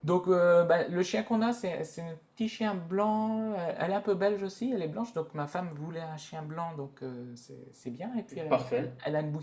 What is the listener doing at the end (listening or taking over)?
listening